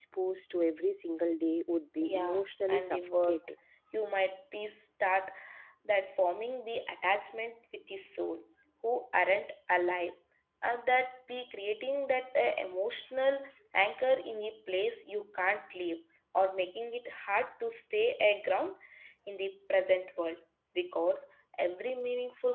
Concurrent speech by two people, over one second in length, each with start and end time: 2.0-3.4

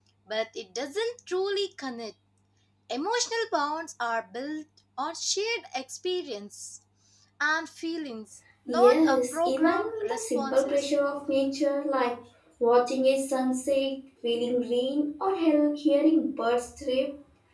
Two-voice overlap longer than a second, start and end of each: 8.7-10.9

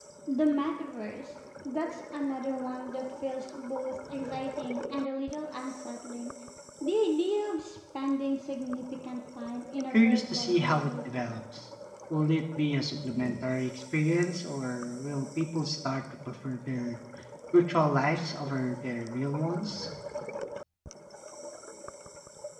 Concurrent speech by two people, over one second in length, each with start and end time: 9.9-11.2

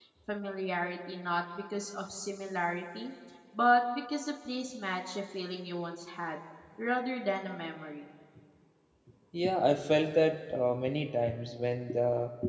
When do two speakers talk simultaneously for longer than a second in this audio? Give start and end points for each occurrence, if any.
none

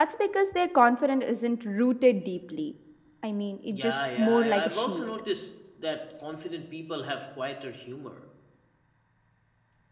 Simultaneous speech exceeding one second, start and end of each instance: 3.7-5.1

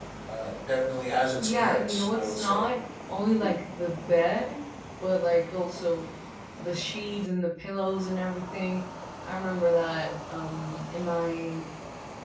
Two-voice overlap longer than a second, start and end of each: 1.4-2.7

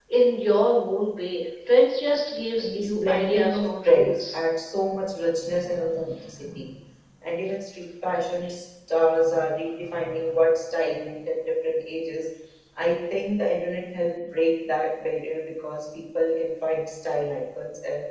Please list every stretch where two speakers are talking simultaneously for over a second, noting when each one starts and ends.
2.6-4.4

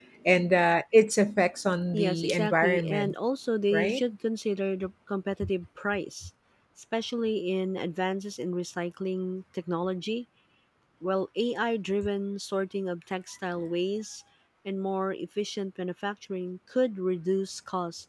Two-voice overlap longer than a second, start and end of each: 1.9-3.1

